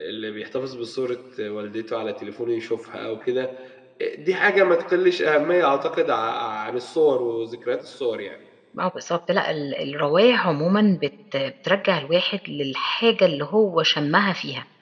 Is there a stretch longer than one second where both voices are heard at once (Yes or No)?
No